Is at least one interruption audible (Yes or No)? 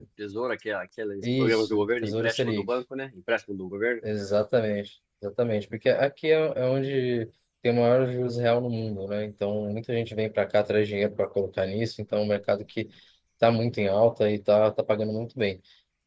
Yes